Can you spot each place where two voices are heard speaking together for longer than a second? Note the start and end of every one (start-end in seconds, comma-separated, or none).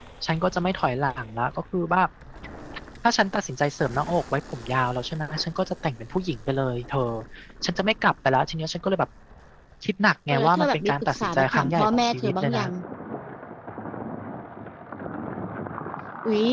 10.3-12.6